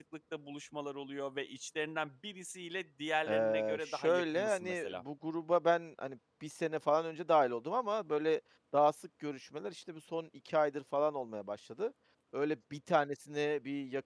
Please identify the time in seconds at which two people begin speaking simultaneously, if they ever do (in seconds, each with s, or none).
3.2 s